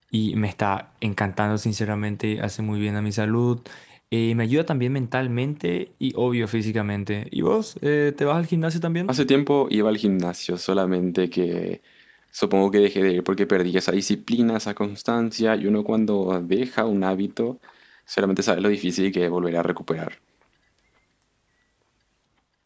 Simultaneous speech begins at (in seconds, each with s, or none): none